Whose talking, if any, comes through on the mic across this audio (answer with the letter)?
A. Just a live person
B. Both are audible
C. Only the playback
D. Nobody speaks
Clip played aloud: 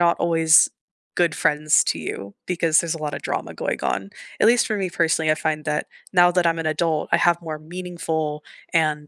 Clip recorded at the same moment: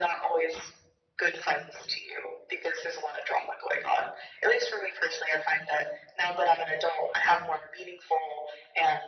C